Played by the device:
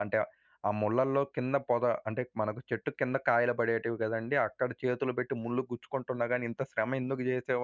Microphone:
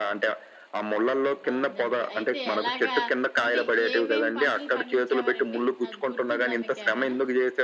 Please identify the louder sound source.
echo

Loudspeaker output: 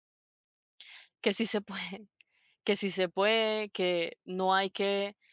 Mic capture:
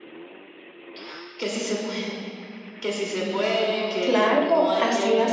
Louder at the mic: user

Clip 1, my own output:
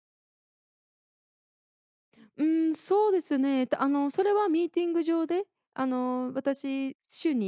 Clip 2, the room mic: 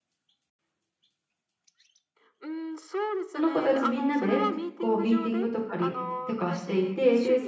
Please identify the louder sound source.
user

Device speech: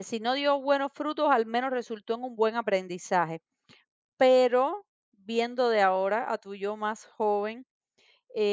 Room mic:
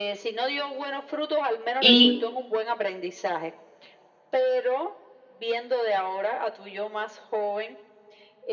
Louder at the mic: user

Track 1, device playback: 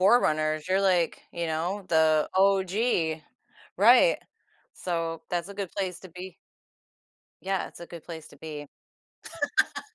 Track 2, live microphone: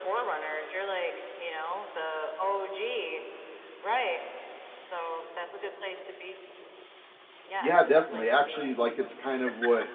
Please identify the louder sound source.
user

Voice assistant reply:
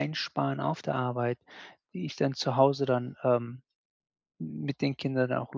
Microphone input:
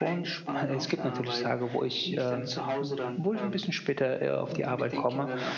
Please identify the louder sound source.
user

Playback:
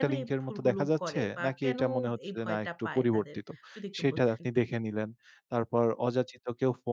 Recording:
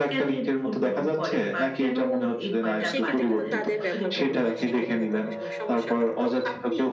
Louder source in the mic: echo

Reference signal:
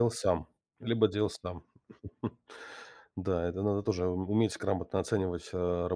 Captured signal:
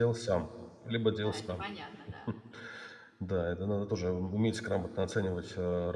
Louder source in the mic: echo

